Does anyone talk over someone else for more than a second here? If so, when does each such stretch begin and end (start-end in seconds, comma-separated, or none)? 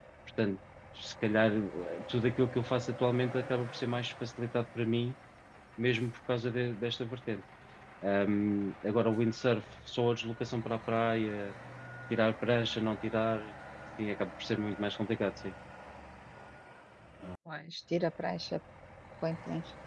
none